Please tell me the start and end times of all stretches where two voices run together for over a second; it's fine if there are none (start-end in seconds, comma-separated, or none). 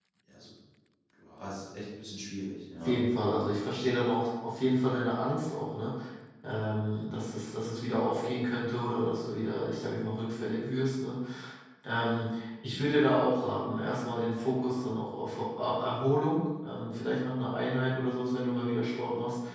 none